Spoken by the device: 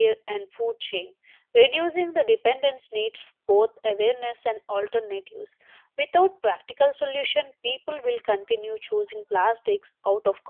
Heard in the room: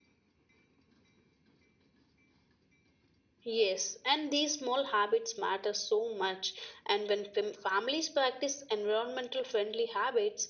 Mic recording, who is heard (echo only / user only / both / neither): user only